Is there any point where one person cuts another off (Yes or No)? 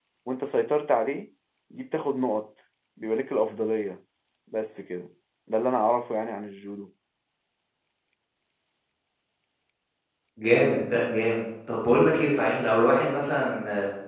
No